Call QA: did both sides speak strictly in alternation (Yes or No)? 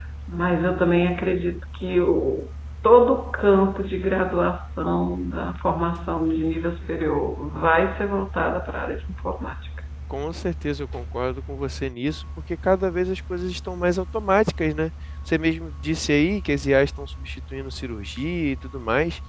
Yes